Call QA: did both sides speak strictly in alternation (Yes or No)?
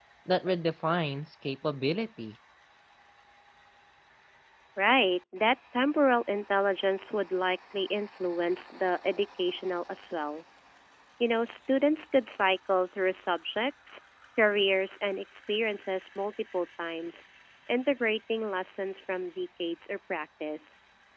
Yes